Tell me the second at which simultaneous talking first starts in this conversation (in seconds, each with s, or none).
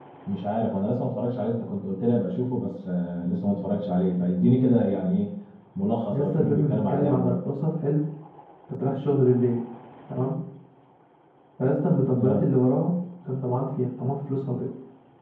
6.1 s